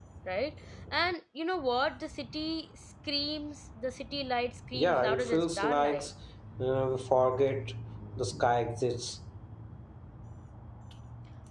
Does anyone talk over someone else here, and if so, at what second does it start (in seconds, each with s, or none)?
4.7 s